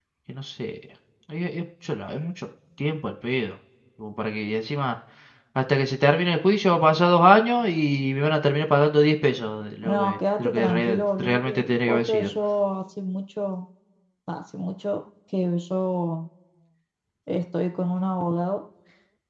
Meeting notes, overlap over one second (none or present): present